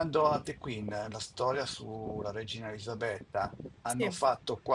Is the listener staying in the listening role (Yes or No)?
Yes